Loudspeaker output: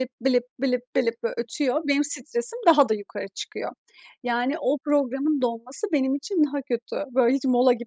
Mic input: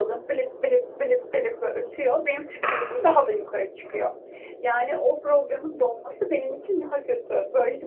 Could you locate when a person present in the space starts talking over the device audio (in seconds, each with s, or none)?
none